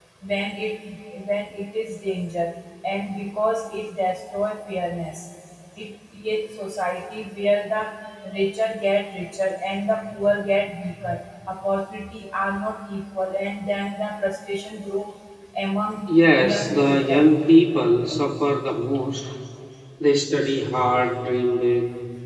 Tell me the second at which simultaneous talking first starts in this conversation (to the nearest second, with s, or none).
16 s